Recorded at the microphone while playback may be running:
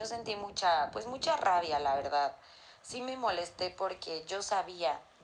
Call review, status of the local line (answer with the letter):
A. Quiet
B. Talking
A